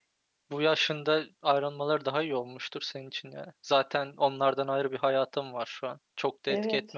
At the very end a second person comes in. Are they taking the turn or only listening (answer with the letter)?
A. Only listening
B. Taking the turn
B